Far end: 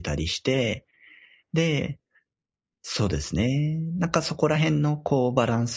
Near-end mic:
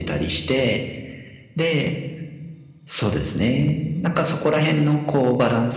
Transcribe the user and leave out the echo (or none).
うん。